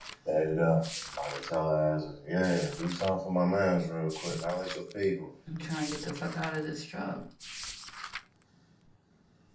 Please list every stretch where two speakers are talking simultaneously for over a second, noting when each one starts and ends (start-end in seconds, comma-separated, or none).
none